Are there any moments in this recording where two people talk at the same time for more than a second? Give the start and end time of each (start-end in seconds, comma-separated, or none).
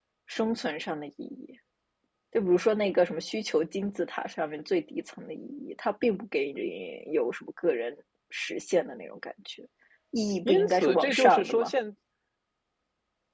10.4-11.7